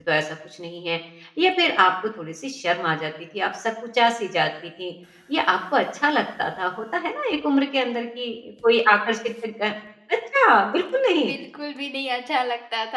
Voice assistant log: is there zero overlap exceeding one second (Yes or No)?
Yes